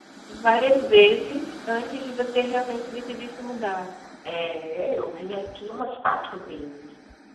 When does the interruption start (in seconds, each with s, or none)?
none